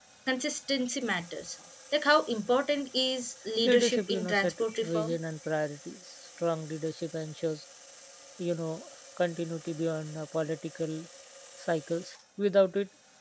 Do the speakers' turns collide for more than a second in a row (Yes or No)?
Yes